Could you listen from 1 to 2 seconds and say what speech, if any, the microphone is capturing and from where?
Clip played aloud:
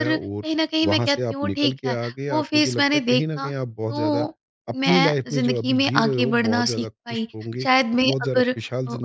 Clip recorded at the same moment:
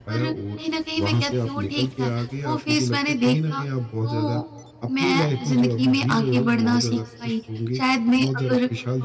echo only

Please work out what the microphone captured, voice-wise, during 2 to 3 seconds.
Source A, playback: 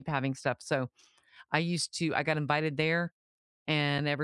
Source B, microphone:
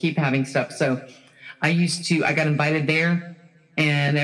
echo only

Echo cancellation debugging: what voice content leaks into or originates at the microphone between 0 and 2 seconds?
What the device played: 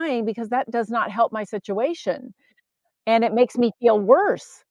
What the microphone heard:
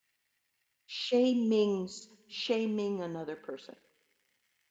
user only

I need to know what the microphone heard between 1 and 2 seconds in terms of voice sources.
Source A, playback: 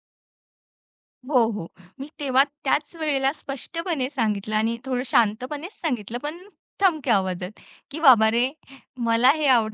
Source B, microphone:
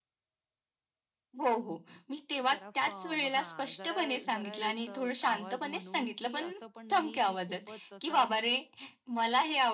echo only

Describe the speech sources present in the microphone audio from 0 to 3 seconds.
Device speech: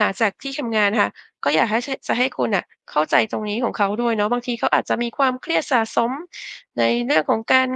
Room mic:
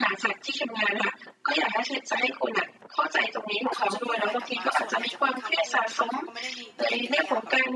echo only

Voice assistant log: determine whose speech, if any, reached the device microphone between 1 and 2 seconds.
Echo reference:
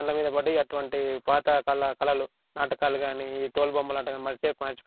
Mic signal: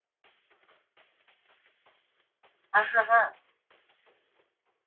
neither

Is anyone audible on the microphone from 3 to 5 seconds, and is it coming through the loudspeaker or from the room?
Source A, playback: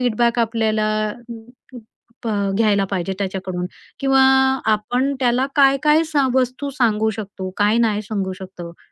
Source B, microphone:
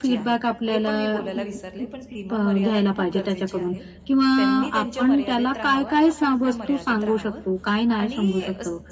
both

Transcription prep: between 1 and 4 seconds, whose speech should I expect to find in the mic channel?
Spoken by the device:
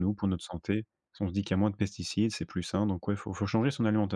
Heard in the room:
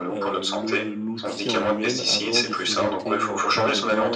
both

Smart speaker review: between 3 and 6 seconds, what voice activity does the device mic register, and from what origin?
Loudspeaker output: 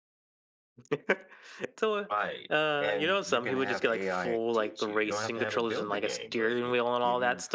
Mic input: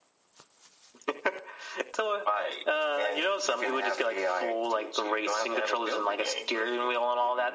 echo only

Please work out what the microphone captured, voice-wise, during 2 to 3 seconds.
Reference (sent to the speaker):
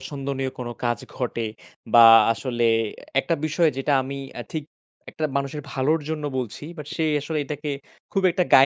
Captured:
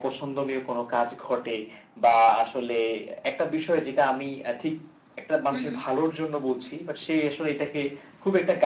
echo only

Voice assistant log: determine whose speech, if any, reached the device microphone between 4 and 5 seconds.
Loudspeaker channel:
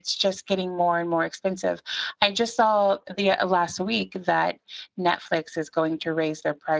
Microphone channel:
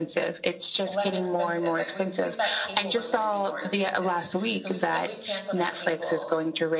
both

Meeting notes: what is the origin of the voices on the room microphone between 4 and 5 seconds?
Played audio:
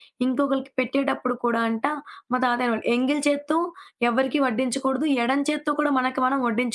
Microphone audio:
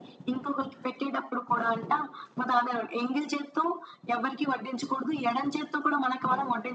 echo only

